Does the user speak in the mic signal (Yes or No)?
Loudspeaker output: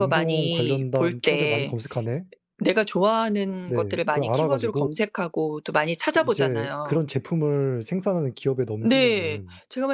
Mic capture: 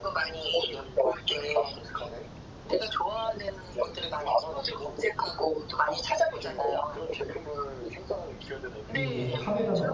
Yes